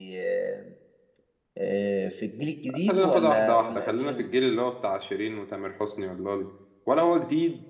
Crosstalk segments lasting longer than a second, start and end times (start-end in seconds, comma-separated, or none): 2.9-4.2